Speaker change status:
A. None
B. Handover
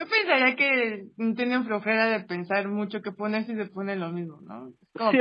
B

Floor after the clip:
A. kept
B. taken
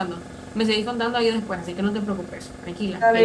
B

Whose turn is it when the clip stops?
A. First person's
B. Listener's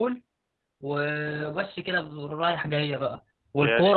A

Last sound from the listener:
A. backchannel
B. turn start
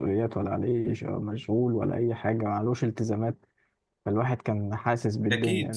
A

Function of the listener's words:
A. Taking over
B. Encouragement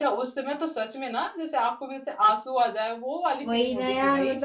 A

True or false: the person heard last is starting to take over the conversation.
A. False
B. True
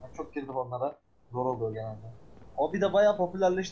A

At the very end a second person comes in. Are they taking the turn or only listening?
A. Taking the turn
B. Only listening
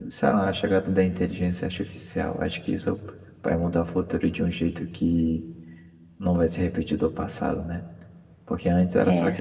B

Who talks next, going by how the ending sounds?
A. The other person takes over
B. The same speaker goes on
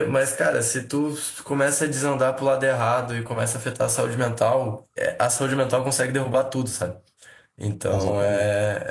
B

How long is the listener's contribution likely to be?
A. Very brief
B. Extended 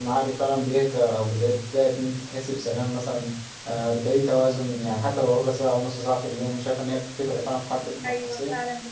B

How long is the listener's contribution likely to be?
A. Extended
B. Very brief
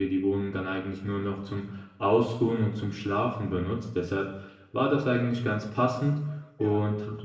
B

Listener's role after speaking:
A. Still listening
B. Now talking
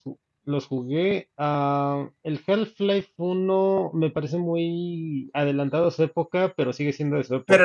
B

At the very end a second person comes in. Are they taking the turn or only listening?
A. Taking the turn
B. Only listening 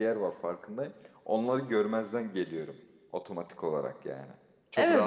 A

